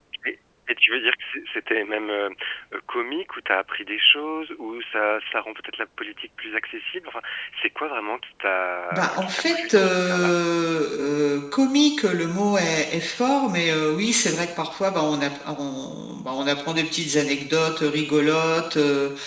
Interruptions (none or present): present